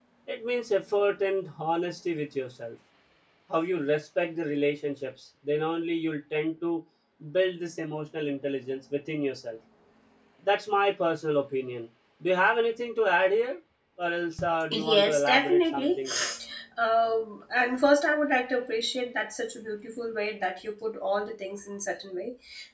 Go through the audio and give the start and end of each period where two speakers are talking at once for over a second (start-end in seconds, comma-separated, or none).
14.7-16.0